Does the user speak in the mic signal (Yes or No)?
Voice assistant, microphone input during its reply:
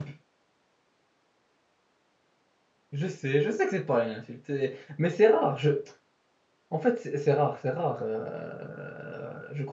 Yes